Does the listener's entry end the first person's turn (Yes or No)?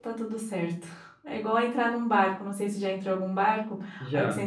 No